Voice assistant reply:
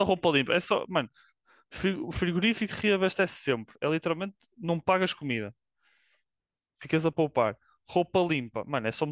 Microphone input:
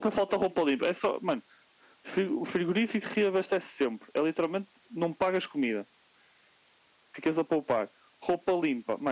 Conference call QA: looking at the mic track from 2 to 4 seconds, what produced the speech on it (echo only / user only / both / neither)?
echo only